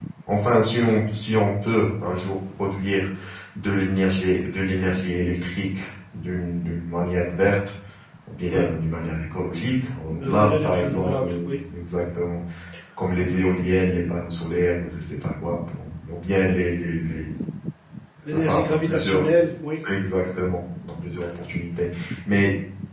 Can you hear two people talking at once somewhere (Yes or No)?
Yes